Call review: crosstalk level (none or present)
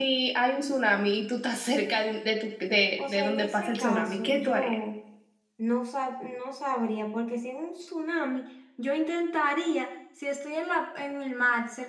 present